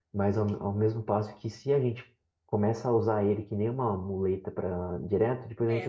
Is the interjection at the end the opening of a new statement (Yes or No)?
Yes